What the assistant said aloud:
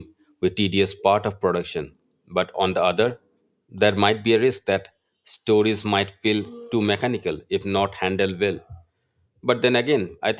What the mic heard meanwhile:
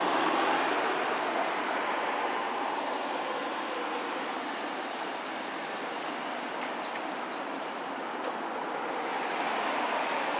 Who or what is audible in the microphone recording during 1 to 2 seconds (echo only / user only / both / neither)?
neither